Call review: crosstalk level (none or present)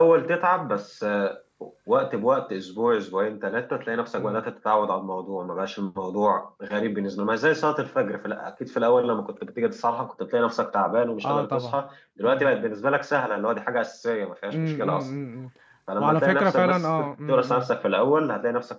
present